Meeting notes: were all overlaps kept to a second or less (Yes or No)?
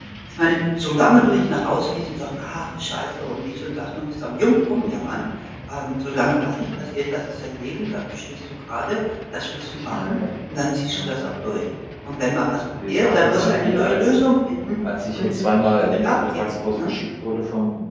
No